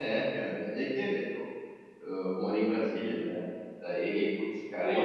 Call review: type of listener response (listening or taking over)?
taking over